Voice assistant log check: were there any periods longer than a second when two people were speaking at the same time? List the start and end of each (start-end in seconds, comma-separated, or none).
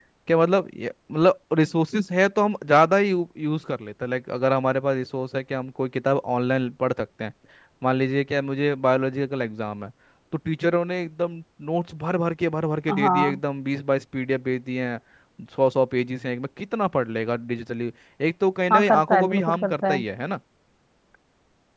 18.7-20.0